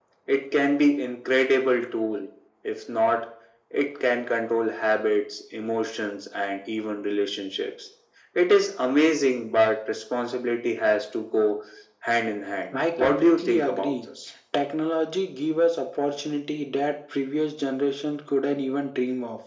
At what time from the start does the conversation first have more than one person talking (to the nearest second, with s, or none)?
13 s